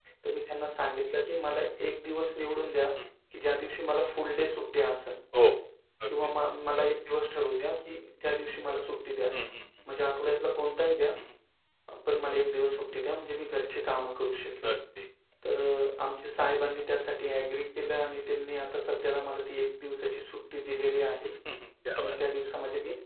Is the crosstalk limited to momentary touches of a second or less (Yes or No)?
Yes